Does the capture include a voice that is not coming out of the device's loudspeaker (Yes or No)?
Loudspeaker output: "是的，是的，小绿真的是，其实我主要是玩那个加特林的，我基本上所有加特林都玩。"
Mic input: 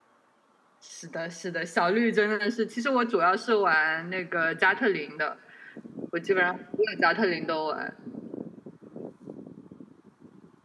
No